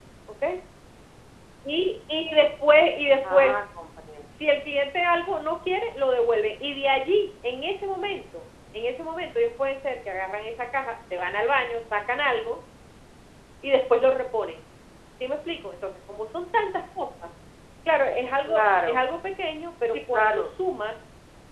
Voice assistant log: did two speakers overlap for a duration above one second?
No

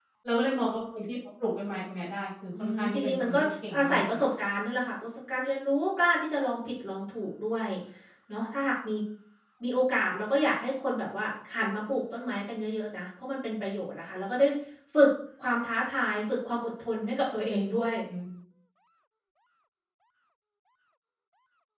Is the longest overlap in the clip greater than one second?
Yes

